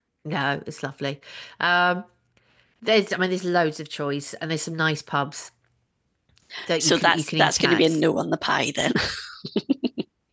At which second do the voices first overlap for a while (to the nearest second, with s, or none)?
7 s